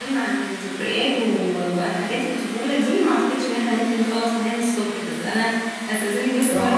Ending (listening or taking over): listening